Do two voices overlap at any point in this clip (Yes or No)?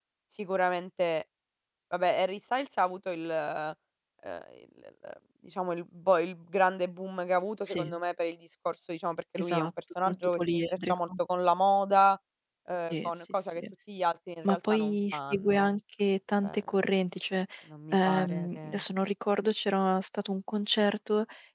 Yes